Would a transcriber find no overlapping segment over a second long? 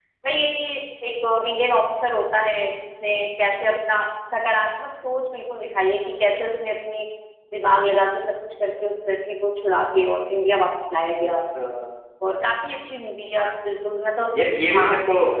Yes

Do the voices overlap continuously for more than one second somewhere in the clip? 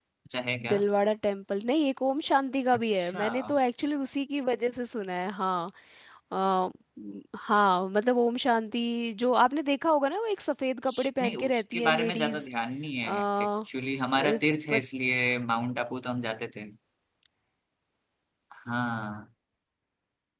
Yes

